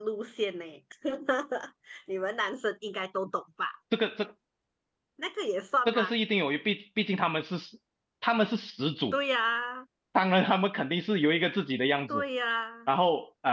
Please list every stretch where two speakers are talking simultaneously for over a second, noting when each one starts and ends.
none

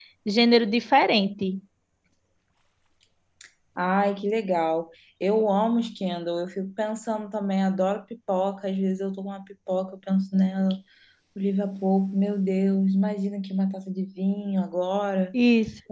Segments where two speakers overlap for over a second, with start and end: none

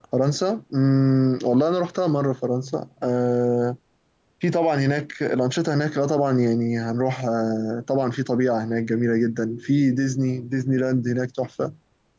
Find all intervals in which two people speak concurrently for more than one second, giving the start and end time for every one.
none

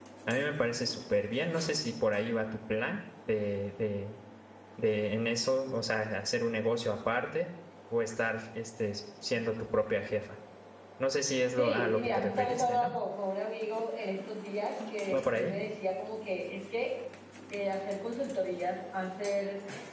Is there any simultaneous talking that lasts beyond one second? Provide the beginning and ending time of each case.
11.6-12.9

